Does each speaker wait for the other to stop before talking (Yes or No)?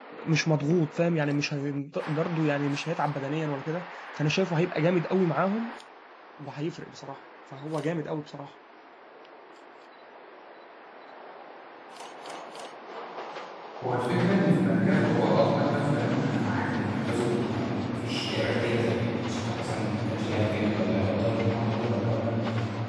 Yes